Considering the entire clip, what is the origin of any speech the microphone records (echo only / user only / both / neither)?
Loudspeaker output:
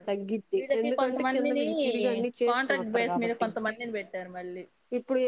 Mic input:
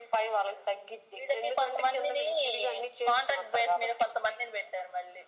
echo only